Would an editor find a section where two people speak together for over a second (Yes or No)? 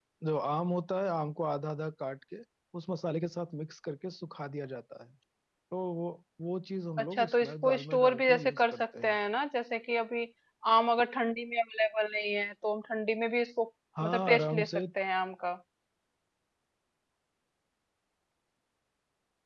Yes